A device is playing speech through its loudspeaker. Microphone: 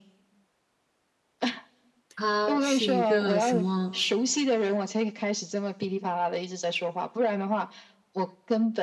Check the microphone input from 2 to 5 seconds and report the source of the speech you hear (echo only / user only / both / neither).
both